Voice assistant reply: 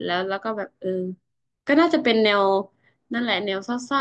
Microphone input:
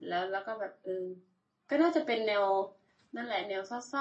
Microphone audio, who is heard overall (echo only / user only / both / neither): echo only